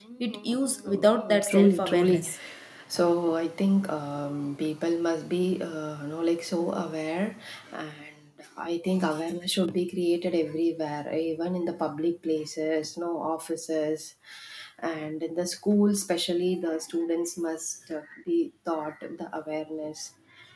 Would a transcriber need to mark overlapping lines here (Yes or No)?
Yes